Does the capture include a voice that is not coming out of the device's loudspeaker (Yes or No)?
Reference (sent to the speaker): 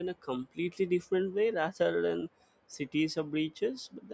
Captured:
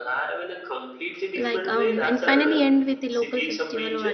Yes